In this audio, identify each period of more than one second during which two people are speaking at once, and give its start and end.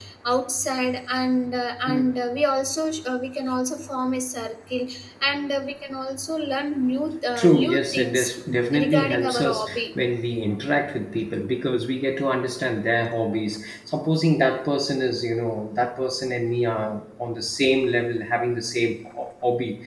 7.4-9.8

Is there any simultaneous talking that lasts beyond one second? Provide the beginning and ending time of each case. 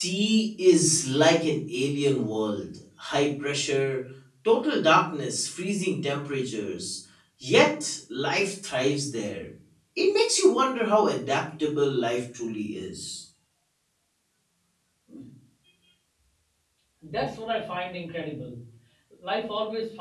none

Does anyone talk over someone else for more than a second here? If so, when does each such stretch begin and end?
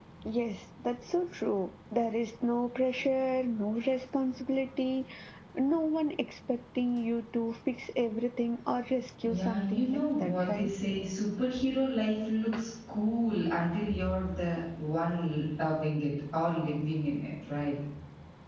9.3-10.7

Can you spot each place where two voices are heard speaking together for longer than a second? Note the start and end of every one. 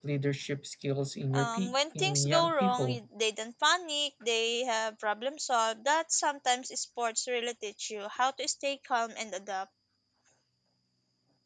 1.3-3.0

